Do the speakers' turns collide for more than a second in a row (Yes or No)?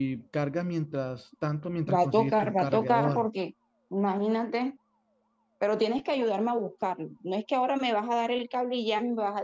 Yes